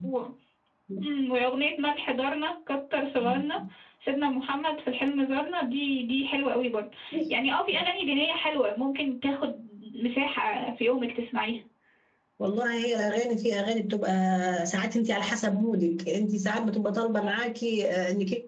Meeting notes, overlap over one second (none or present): none